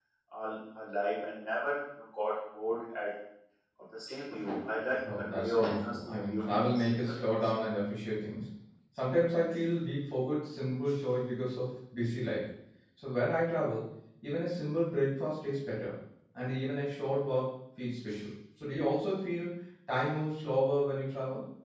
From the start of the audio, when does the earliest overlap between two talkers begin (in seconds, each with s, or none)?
5.0 s